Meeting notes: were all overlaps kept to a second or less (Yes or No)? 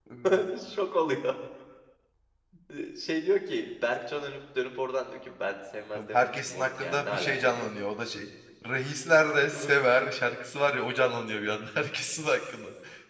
No